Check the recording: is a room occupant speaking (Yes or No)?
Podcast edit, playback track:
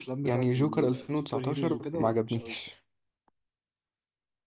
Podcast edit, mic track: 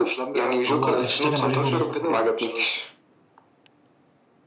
Yes